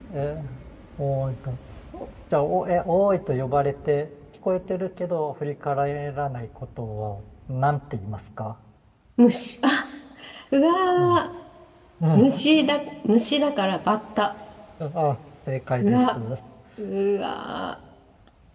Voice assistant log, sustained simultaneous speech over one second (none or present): none